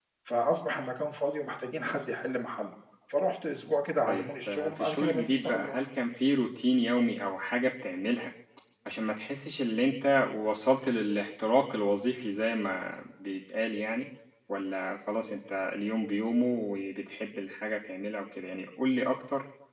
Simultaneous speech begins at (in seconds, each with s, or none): 4.1 s